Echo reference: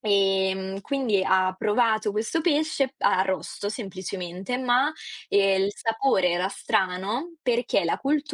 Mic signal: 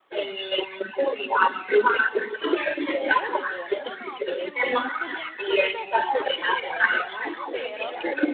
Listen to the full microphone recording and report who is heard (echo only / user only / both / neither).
both